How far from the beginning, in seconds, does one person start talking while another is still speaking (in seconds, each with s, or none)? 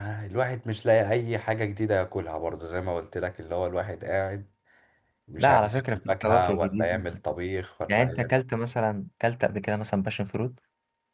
5.4 s